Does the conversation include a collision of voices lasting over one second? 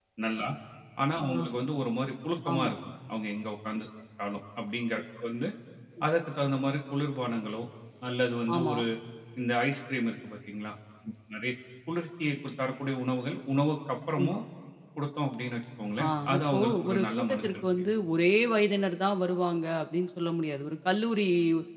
Yes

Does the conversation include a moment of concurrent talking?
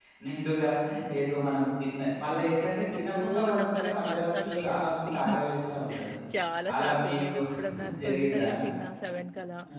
Yes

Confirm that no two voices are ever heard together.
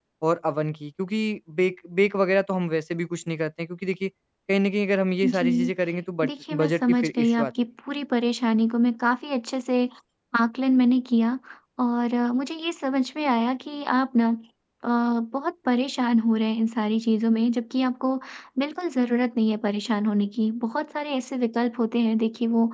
No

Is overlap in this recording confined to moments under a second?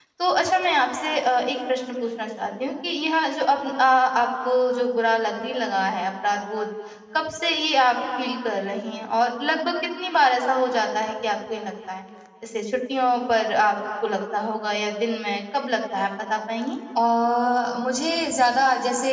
Yes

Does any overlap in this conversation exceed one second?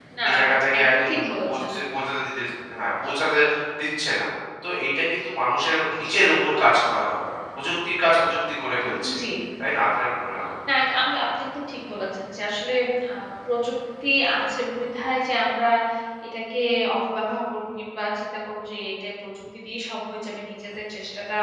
No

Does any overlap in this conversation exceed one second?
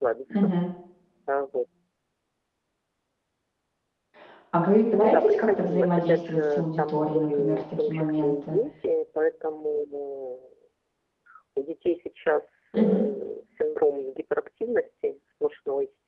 Yes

